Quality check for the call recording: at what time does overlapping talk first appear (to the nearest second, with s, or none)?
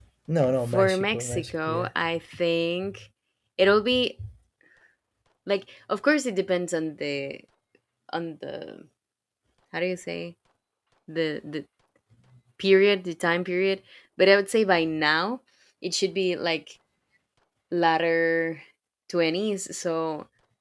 1 s